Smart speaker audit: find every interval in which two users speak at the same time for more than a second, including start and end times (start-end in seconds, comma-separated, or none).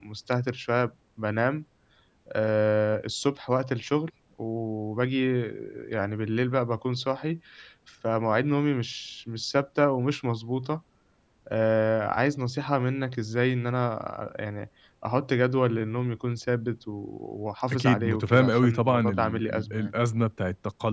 17.7-19.9